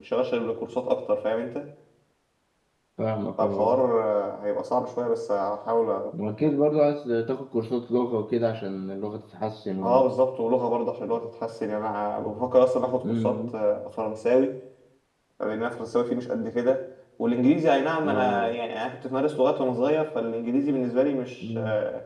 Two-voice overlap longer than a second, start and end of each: none

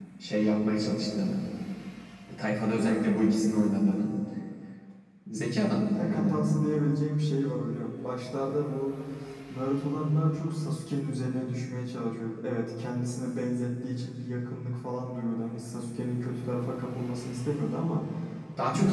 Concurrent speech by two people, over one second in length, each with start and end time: none

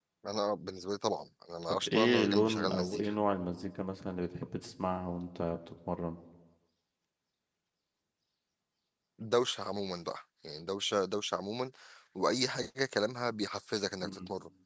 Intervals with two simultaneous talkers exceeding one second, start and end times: 1.6-3.1

